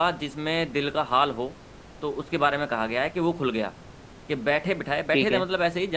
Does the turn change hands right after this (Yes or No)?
No